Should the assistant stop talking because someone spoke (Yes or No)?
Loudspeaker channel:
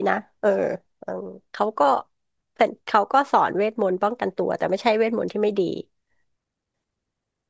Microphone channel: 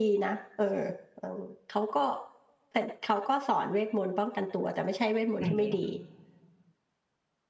Yes